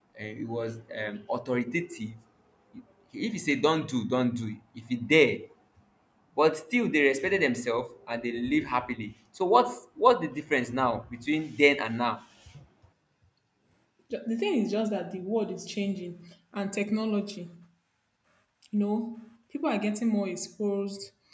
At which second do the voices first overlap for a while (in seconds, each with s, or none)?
none